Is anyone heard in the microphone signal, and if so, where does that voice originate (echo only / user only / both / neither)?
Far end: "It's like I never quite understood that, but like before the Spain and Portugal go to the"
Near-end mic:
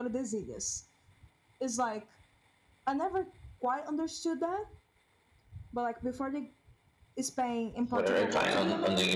both